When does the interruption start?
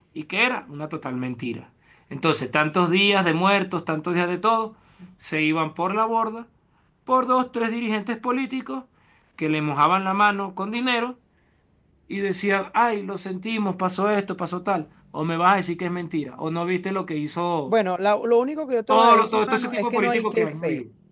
18.9 s

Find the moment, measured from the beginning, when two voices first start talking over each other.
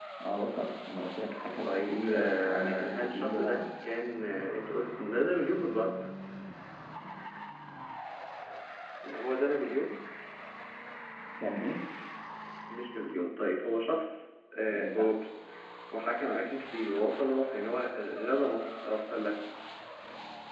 1.6 s

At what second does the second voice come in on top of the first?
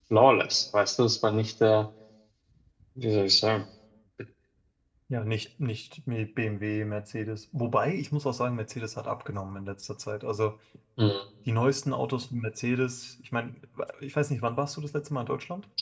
none

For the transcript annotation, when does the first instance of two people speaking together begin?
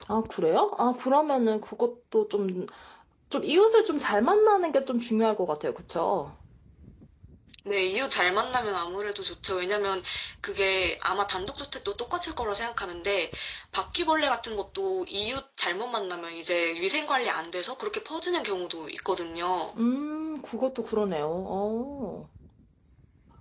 none

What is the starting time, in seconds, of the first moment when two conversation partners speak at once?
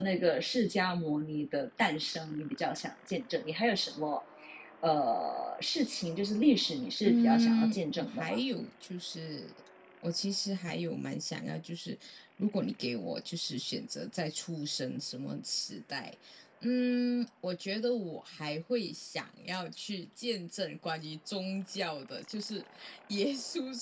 7.0 s

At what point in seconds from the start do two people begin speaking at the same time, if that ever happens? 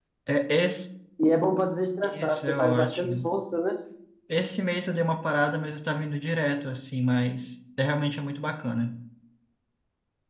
2.0 s

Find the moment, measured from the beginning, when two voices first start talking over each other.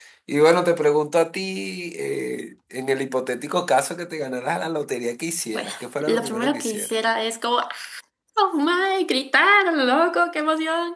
5.5 s

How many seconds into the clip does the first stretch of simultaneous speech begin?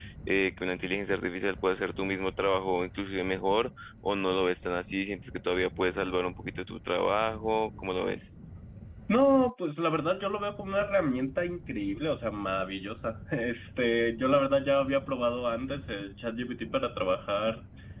none

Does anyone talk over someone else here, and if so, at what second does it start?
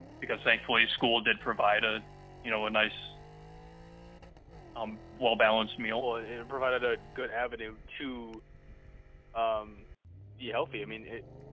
none

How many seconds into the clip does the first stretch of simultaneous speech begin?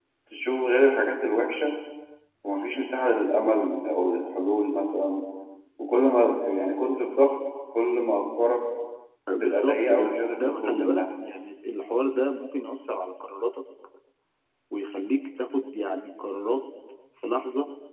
9.3 s

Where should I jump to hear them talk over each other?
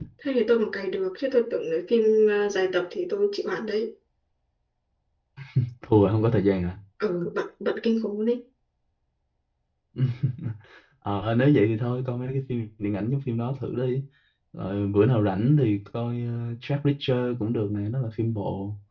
none

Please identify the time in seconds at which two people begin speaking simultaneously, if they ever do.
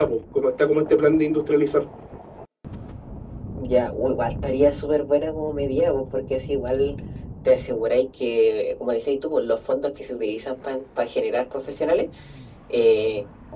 none

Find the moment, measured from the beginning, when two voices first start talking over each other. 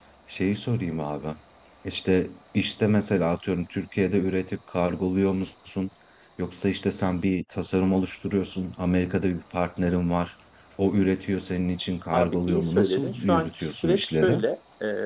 12.1 s

